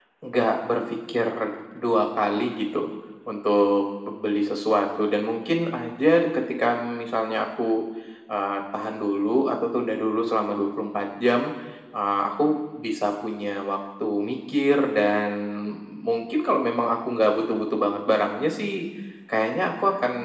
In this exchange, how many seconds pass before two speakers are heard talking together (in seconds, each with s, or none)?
none